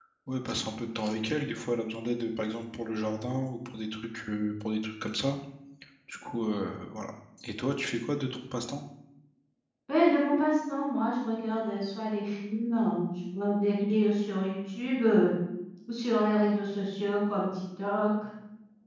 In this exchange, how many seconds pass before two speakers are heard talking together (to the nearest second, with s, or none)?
none